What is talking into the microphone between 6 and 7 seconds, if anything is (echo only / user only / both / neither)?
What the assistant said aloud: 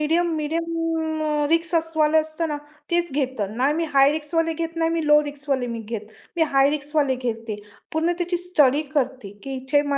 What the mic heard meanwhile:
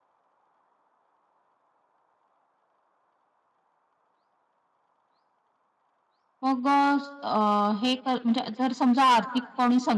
user only